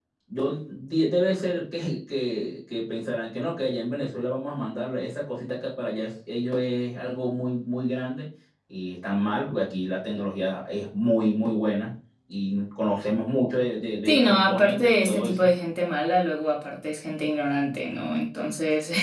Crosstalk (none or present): present